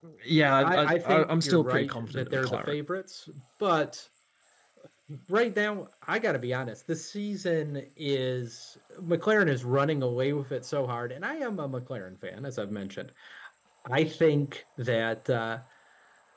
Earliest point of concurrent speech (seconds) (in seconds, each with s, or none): 0.6 s